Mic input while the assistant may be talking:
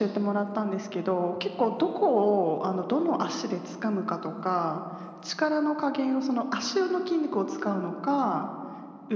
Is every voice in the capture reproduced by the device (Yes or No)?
Yes